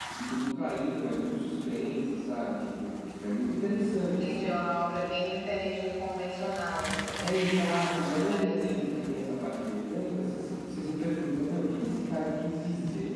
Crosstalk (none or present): present